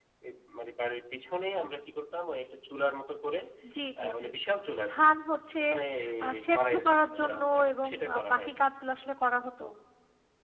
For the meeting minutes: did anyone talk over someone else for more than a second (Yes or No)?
Yes